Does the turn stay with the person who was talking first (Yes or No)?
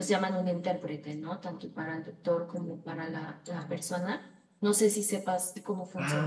No